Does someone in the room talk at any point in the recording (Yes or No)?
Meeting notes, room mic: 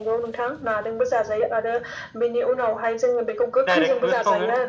Yes